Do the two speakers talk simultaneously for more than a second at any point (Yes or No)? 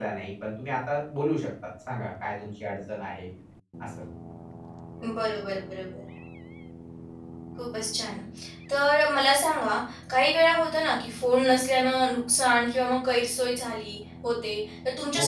No